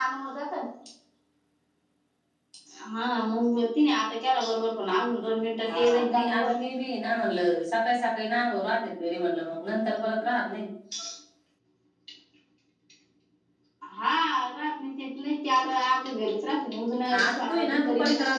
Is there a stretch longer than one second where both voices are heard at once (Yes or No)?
Yes